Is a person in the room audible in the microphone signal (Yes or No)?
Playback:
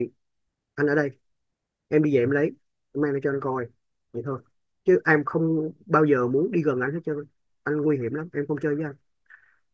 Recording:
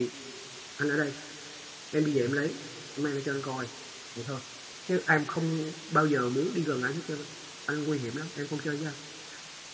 No